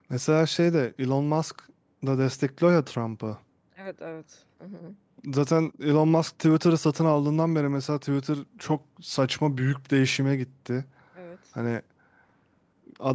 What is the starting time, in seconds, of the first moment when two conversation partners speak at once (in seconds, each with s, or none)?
none